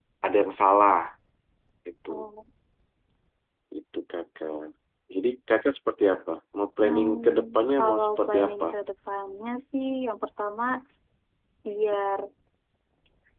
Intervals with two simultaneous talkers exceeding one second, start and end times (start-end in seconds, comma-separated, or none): 6.8-8.7